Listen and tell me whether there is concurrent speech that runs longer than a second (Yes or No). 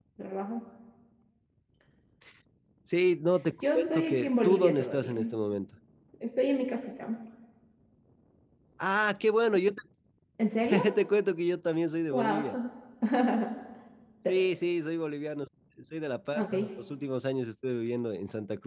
Yes